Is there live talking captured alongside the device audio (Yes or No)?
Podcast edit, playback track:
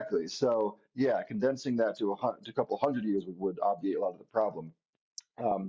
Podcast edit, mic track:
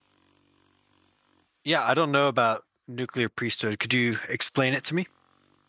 Yes